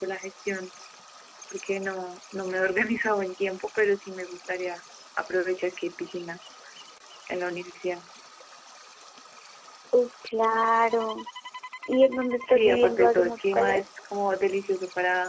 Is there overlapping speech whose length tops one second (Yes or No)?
Yes